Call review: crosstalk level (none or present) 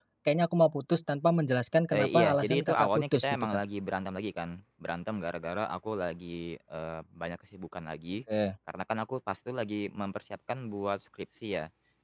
present